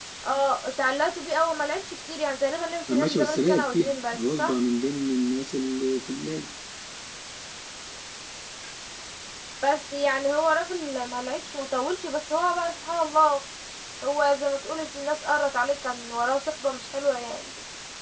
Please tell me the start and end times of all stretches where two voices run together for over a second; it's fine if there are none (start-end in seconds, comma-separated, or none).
2.9-4.5